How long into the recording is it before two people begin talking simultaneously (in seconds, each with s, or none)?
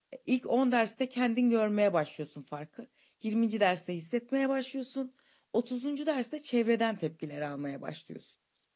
none